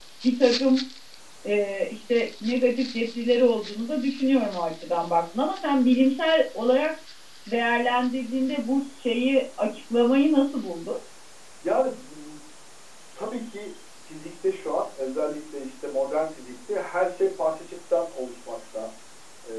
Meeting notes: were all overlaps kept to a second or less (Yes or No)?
Yes